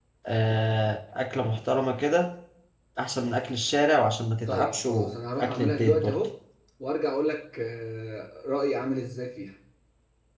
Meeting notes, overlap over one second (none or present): present